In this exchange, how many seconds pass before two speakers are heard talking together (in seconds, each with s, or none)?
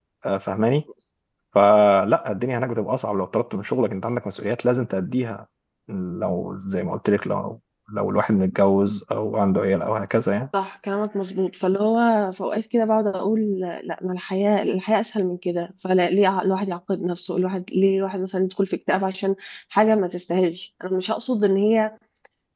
none